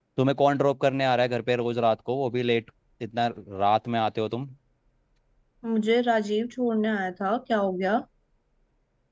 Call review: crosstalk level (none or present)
none